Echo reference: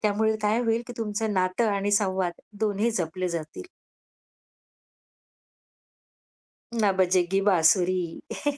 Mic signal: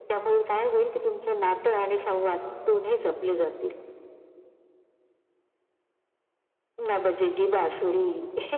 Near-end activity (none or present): present